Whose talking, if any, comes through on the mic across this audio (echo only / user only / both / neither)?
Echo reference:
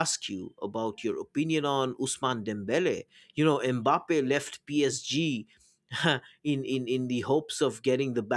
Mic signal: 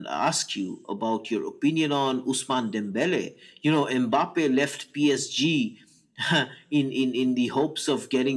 echo only